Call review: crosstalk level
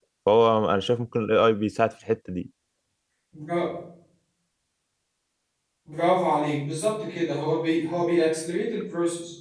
none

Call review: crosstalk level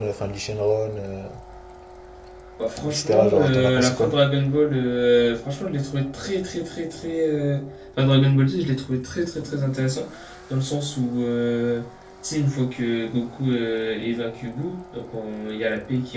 present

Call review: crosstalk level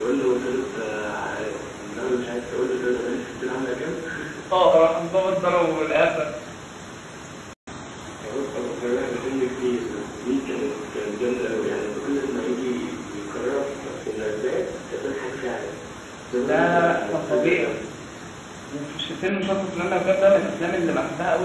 present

